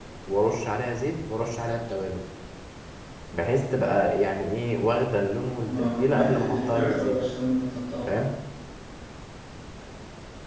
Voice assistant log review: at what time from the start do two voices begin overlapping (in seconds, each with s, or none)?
5.7 s